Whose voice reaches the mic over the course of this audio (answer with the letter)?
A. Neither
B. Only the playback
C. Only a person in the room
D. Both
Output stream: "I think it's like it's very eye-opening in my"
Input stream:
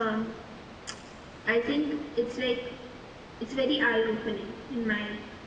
B